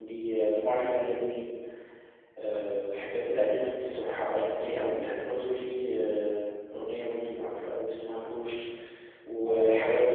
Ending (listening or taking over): listening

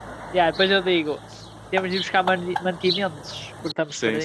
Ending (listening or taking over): taking over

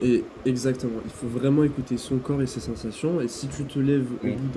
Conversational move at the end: listening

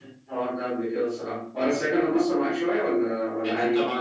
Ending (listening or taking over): taking over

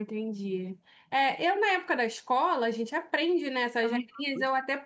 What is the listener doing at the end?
listening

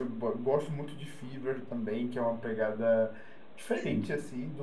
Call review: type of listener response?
listening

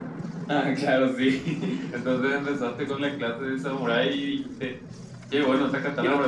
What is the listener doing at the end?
listening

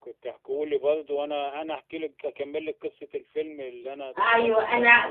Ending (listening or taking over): taking over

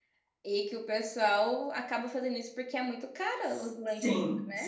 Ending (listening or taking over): taking over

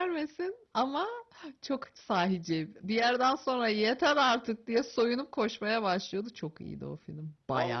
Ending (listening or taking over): taking over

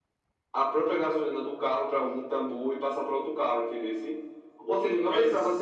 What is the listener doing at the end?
listening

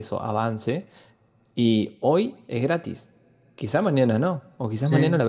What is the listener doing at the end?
listening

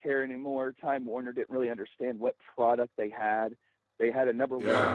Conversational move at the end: listening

